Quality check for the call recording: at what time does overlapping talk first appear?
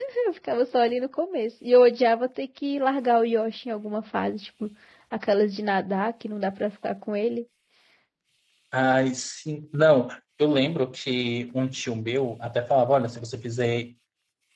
none

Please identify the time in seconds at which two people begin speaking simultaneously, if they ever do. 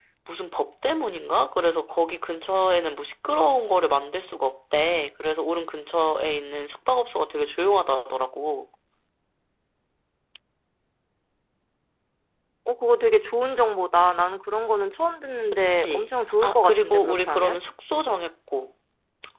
15.5 s

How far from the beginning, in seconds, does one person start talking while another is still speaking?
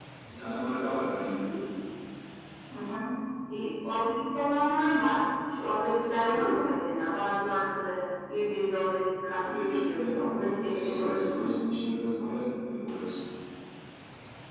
9.3 s

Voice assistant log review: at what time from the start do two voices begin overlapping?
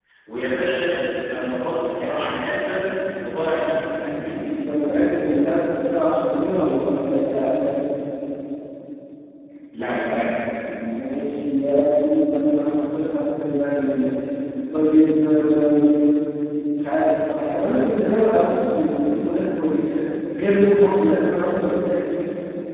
none

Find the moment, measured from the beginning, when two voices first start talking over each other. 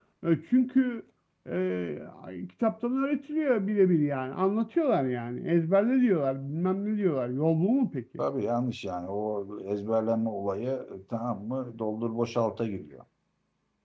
none

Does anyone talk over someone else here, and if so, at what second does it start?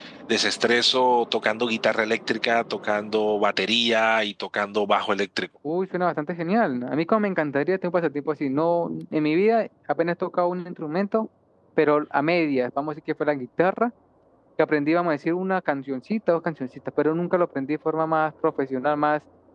none

